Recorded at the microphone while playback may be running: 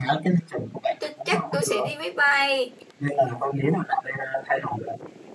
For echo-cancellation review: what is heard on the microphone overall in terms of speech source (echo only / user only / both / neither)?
both